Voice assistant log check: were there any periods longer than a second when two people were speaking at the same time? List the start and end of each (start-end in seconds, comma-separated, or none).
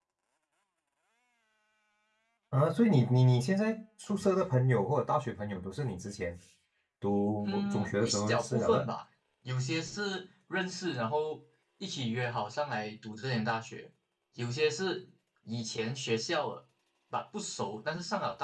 7.4-8.9